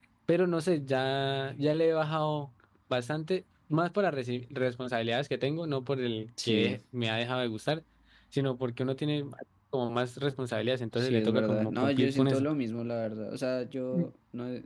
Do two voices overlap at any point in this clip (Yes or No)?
Yes